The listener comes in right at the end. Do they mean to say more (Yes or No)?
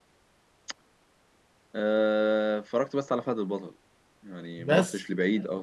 No